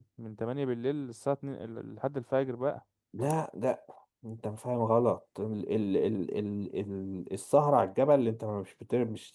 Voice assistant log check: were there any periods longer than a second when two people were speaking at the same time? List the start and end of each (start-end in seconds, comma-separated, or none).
none